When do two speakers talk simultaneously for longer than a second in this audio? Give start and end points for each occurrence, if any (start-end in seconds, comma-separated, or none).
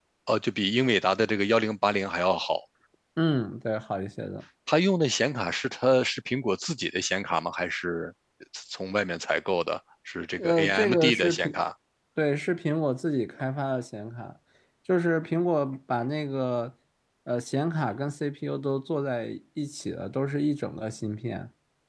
10.4-11.6